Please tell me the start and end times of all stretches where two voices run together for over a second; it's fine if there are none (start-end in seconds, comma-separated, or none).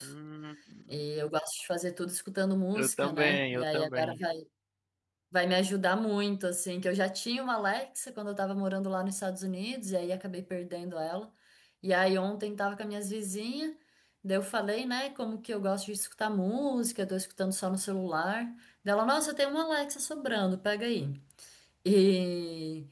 2.8-4.2